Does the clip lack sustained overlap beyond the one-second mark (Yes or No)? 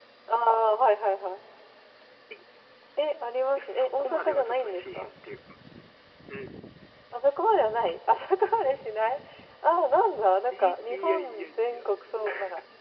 No